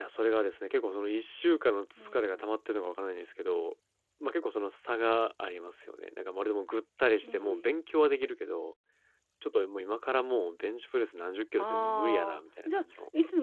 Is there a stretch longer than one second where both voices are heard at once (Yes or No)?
Yes